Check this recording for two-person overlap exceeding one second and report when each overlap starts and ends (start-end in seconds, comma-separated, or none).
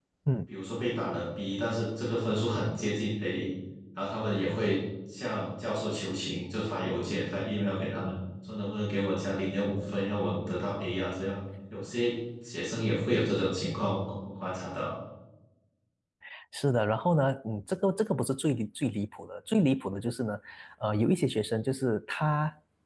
none